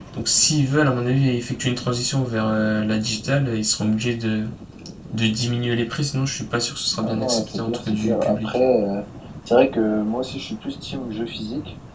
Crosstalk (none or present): present